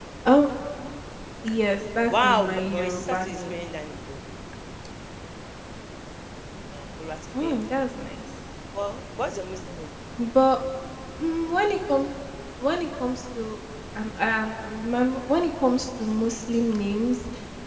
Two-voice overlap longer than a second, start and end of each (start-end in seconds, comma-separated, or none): 2.1-3.5